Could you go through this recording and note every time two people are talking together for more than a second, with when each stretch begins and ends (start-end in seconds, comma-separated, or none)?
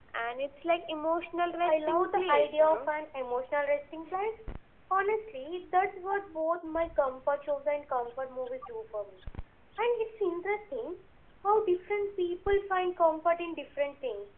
1.6-2.8